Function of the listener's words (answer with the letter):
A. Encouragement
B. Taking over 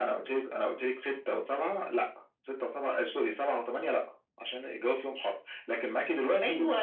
B